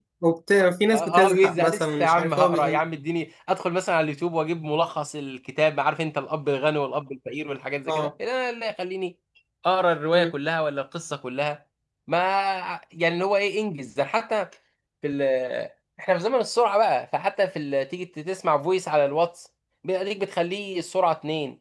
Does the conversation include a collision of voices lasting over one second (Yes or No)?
Yes